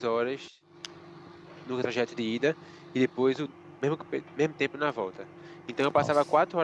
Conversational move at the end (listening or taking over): listening